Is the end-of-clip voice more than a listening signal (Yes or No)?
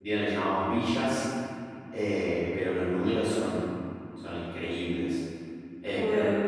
No